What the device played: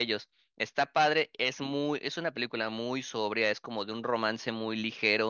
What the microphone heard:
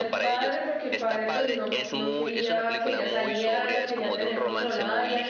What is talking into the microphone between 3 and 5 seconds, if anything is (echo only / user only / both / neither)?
both